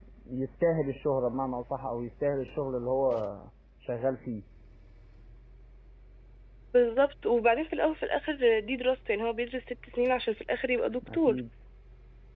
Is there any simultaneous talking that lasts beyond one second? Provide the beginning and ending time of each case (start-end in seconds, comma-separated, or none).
none